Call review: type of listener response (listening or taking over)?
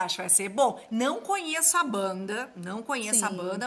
listening